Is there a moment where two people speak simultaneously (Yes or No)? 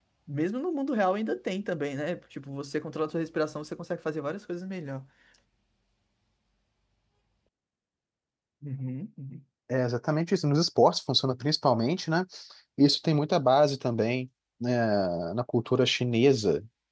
No